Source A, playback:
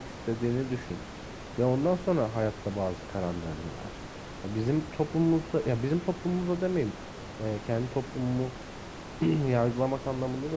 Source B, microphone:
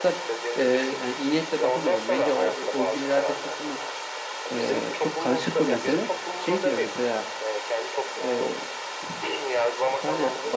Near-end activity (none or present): present